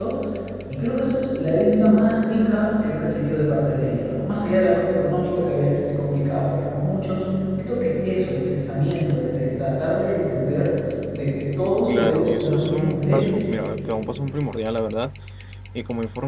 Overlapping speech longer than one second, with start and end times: 11.9-13.3

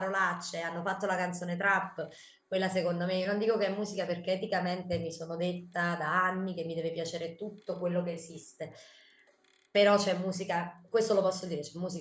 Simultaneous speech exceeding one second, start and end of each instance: none

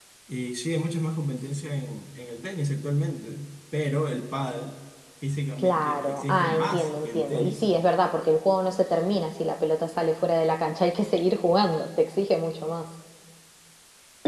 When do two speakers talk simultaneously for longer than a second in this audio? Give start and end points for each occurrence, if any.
5.6-7.6

